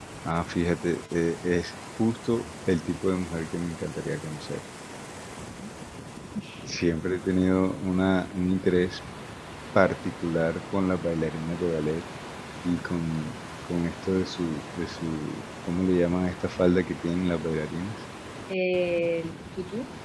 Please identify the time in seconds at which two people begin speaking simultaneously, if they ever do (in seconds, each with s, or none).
none